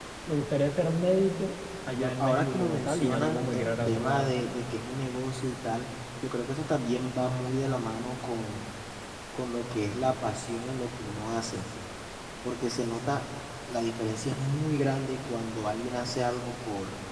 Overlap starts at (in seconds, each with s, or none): 1.9 s